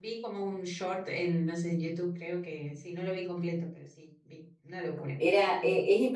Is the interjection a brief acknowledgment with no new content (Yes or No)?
No